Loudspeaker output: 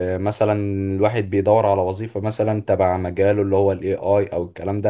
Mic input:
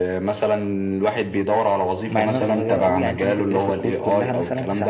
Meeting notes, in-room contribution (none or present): present